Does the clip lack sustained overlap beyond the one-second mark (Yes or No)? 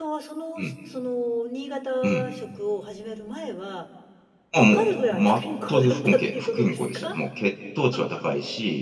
No